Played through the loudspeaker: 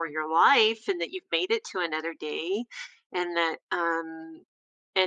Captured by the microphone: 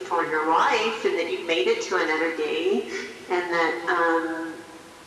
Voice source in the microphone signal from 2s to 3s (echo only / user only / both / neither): echo only